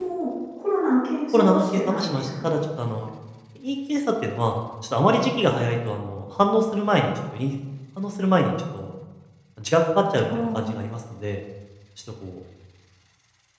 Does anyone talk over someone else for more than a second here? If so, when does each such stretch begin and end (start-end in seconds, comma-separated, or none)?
1.3-2.5